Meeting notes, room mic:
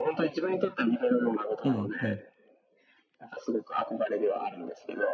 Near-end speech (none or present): present